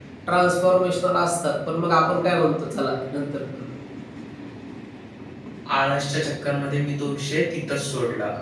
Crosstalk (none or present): none